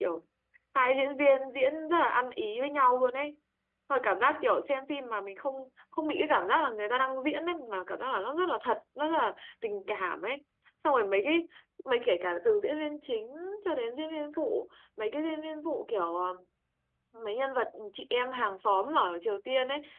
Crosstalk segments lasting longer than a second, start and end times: none

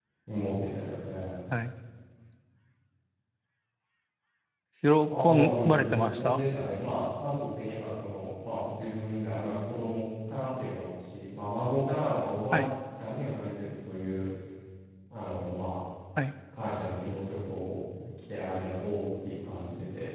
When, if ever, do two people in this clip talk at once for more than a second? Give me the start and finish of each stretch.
5.1-6.4

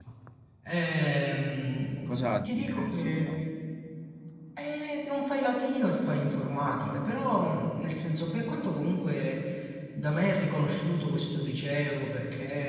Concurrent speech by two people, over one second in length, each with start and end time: 2.1-3.3

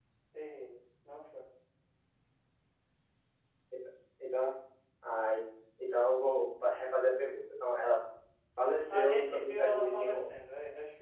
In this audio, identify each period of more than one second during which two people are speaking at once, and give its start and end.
8.9-10.2

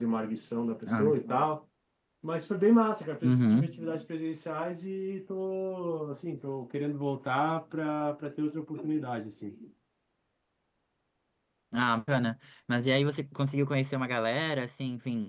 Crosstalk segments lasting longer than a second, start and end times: none

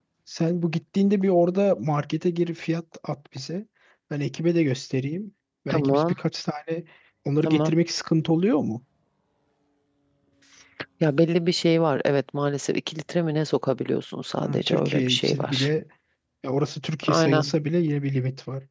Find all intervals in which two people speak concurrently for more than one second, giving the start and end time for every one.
14.4-15.7

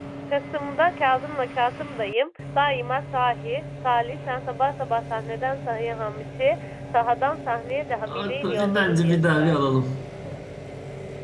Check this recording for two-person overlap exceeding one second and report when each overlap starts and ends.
8.1-9.6

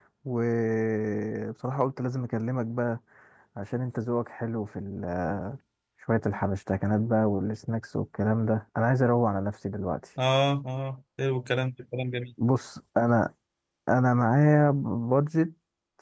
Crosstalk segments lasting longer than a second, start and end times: none

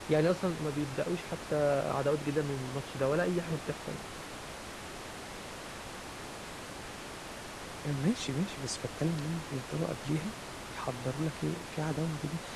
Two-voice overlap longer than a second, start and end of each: none

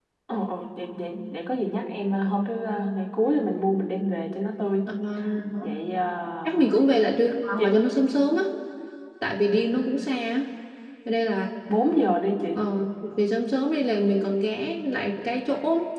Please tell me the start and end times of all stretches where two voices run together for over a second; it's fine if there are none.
none

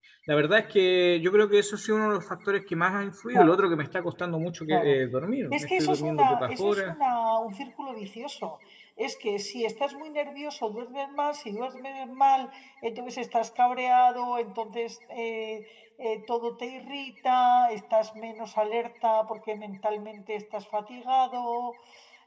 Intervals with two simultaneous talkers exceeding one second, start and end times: 5.5-7.0

